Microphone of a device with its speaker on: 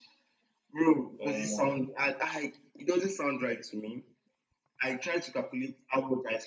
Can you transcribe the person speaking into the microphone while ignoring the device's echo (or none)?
Um,